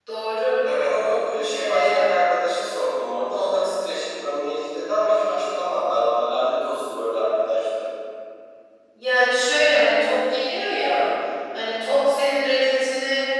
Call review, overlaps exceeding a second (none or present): none